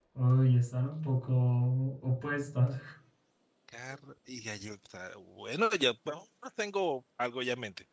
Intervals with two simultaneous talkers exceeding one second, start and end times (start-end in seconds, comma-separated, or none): none